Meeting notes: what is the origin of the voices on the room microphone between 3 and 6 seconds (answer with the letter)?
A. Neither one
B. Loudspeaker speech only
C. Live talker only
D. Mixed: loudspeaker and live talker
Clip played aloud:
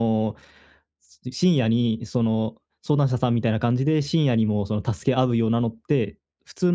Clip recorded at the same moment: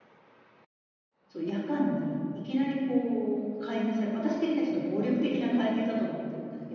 C